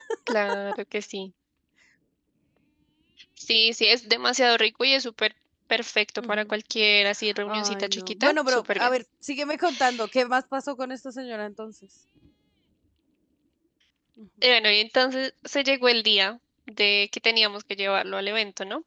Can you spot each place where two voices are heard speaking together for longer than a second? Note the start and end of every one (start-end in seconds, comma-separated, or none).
7.5-8.9